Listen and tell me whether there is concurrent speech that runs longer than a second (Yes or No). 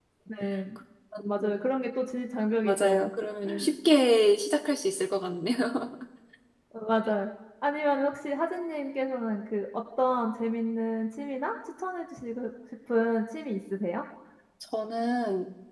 No